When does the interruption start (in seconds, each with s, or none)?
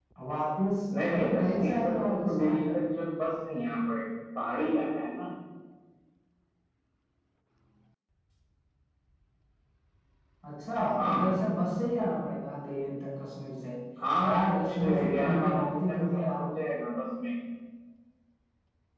1.0 s